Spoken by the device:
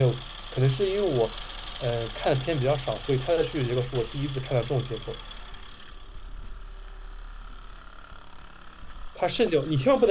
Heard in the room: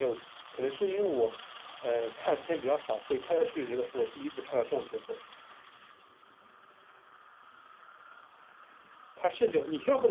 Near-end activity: none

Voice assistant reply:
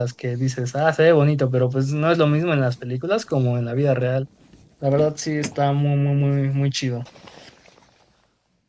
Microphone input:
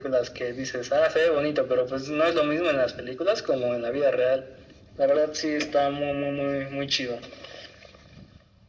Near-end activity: none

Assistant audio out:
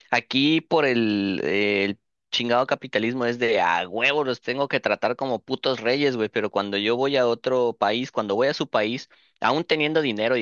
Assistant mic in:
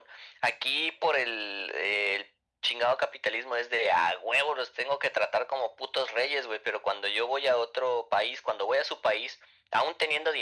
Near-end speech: none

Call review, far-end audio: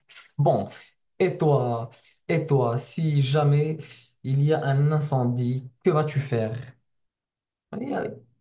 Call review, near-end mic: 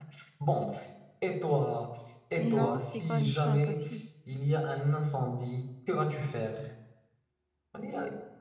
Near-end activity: present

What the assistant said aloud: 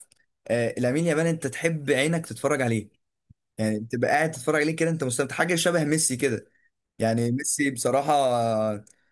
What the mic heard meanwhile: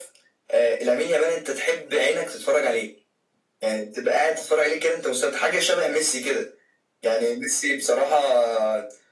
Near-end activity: none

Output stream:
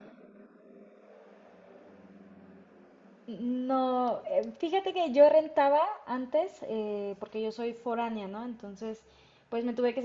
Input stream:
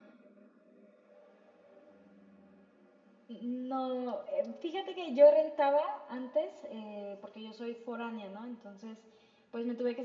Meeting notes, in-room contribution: none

